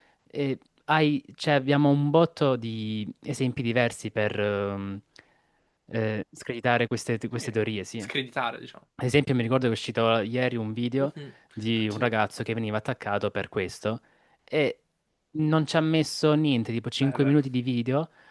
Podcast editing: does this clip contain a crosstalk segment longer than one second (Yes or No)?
No